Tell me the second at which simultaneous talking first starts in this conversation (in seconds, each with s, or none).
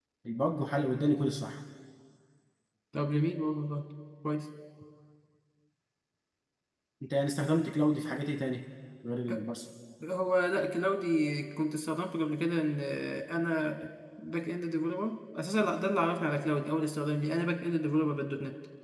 none